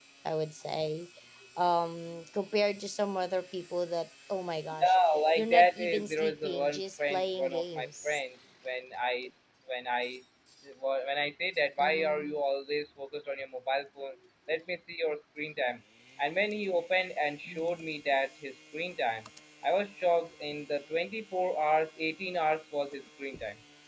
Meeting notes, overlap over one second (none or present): present